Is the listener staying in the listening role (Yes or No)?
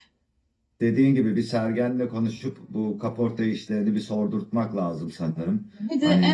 No